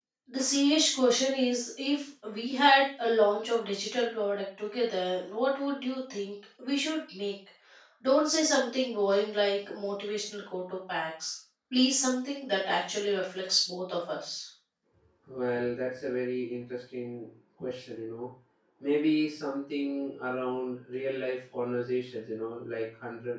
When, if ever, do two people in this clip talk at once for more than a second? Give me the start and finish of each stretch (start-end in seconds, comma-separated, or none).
none